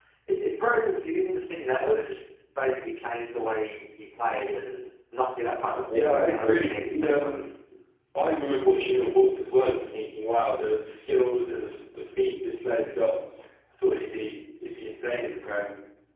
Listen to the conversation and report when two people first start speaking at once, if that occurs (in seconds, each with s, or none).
5.9 s